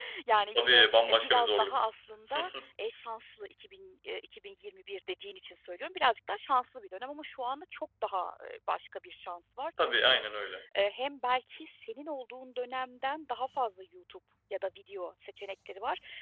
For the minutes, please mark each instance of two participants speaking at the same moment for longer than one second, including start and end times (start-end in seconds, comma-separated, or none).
0.6-1.8